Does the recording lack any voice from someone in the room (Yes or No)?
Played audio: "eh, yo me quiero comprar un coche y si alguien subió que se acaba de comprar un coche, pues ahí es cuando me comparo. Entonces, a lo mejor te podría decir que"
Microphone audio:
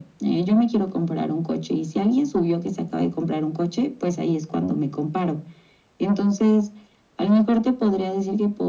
Yes